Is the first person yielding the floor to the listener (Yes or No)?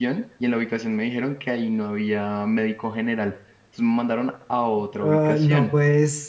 Yes